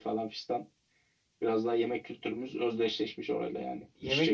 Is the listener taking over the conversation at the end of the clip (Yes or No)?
Yes